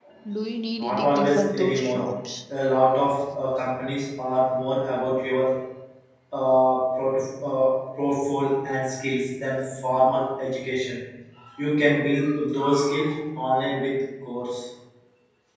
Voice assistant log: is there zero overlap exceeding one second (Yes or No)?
No